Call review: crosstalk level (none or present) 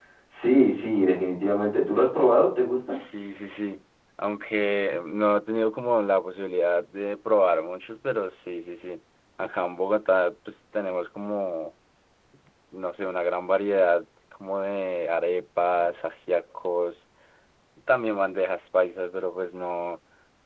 none